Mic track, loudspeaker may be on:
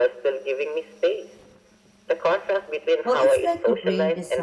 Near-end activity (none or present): present